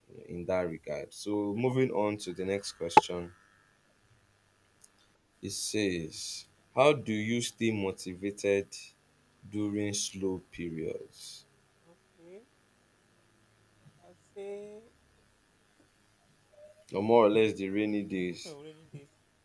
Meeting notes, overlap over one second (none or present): none